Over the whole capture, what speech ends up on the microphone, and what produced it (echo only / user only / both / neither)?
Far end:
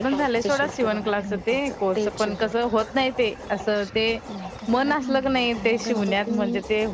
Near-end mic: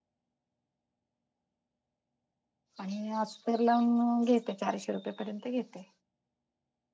user only